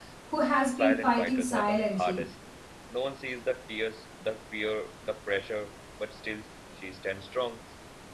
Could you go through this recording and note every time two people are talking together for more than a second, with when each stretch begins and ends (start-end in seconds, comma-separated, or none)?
0.6-2.3